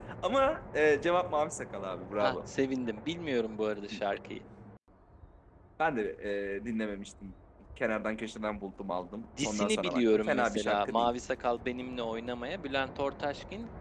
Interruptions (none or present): present